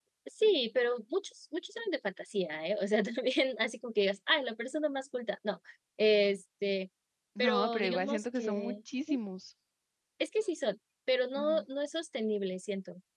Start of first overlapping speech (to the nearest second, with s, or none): 7 s